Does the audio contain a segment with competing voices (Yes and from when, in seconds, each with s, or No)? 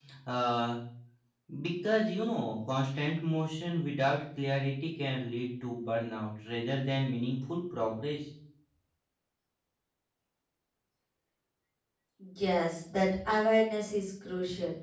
No